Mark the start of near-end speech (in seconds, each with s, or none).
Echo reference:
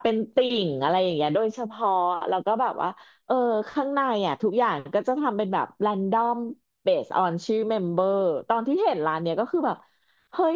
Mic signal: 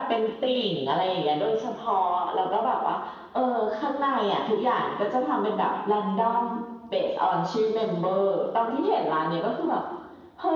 none